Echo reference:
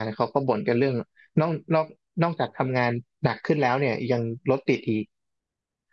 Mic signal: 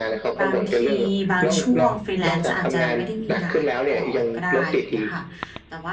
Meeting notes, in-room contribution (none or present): present